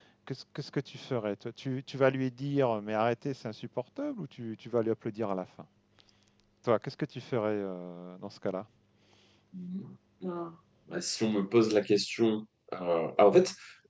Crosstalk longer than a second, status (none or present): none